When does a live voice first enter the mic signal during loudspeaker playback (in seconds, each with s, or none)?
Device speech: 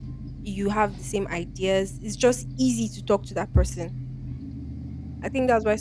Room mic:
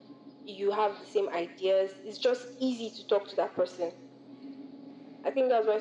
none